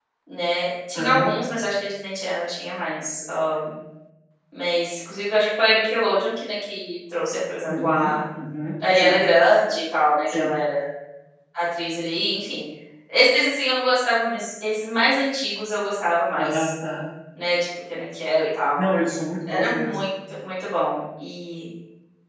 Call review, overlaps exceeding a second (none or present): none